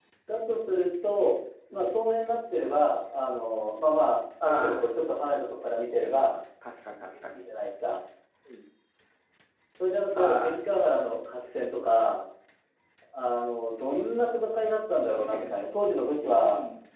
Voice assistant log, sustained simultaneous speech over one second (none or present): none